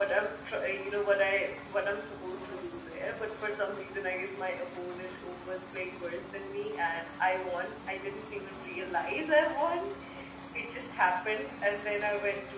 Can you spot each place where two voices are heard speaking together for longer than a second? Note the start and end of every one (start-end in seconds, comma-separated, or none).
none